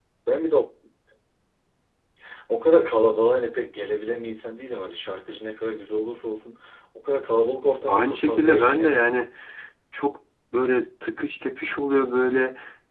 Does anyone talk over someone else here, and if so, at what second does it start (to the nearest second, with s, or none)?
8 s